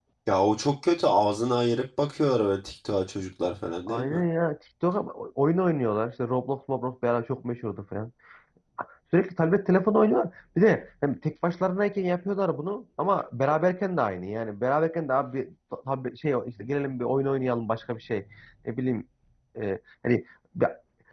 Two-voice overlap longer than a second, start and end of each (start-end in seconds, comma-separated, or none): none